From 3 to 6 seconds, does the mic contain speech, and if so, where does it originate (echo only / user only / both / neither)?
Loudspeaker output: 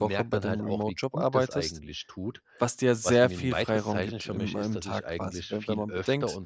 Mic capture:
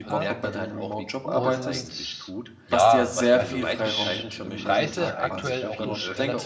both